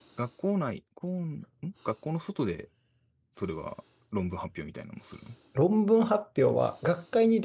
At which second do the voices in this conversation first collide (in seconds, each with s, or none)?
none